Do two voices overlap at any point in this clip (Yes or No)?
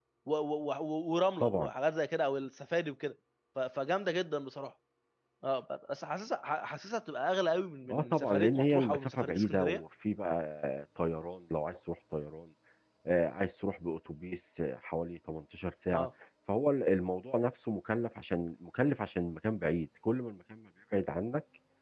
Yes